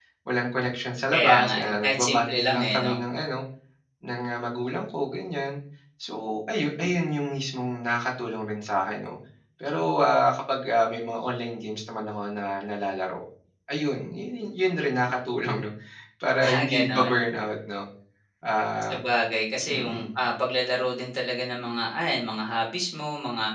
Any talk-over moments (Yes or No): Yes